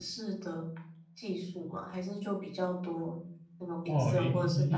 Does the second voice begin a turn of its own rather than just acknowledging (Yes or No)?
Yes